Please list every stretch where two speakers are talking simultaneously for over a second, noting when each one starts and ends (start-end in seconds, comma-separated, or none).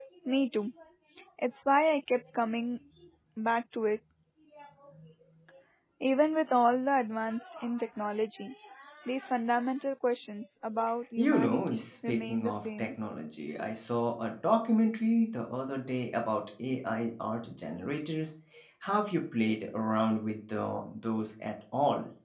11.2-12.9